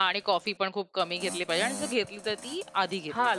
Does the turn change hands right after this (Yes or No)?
Yes